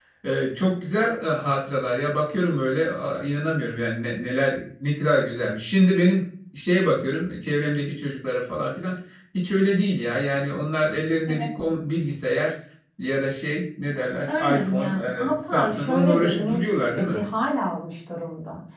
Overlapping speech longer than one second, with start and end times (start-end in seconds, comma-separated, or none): 14.3-17.2